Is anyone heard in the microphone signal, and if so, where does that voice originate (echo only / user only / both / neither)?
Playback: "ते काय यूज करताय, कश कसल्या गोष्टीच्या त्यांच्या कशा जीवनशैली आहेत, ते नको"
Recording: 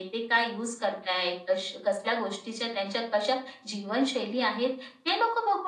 echo only